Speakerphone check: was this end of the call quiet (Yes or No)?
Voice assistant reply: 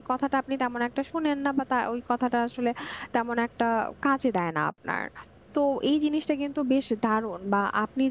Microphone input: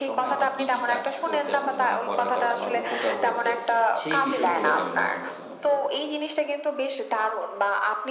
No